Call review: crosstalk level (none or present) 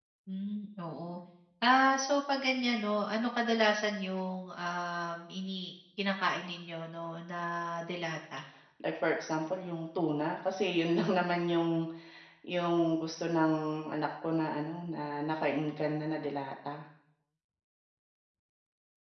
none